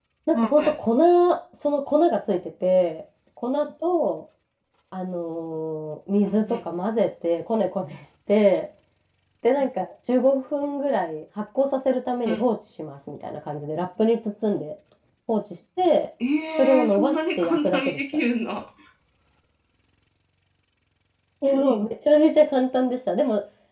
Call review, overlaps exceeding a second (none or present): present